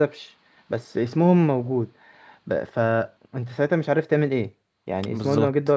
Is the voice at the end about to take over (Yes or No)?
No